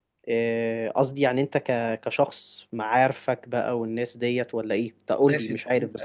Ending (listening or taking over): taking over